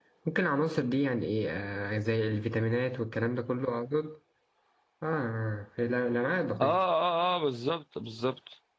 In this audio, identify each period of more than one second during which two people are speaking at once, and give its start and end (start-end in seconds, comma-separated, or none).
none